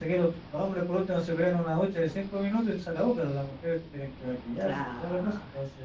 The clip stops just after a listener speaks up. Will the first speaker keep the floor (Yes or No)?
No